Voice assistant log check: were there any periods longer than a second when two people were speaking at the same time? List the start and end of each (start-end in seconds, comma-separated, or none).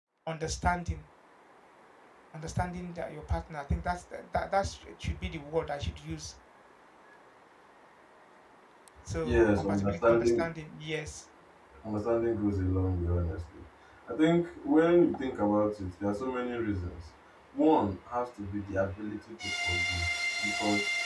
9.2-10.5